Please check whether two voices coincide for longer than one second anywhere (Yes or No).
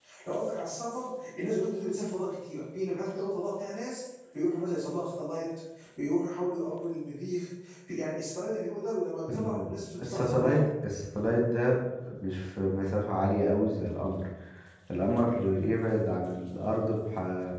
Yes